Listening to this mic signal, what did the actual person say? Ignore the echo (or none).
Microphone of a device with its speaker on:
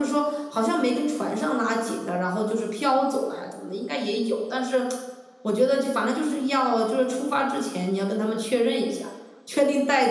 none